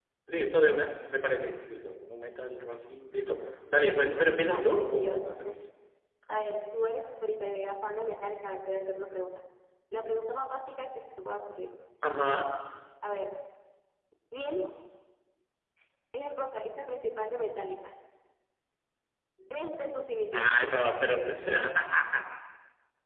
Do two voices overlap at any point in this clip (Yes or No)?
Yes